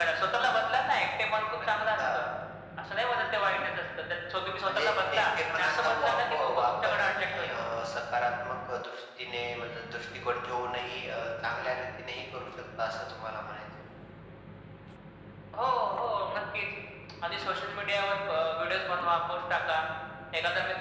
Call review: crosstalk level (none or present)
present